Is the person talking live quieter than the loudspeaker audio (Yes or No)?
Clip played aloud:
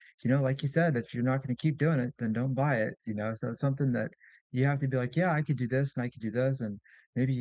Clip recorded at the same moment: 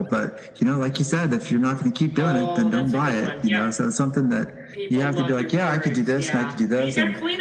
Yes